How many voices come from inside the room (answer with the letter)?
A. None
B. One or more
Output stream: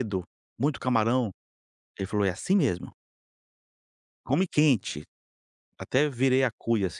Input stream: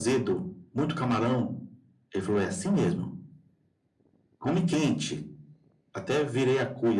A